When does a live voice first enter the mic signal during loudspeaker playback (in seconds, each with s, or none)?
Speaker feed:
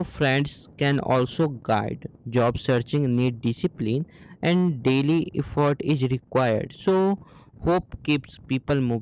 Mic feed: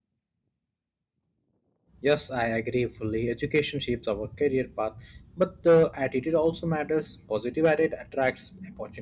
2.0 s